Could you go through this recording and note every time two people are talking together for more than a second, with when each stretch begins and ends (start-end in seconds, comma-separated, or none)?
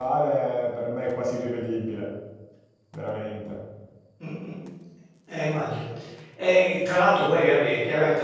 none